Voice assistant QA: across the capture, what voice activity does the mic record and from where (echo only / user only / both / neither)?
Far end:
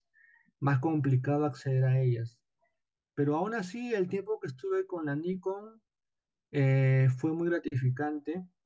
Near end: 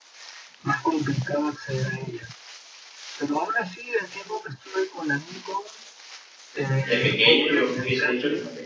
both